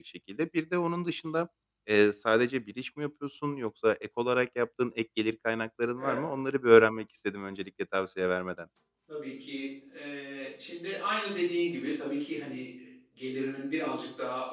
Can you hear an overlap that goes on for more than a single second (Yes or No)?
No